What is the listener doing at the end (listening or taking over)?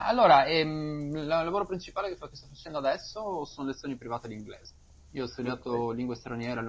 listening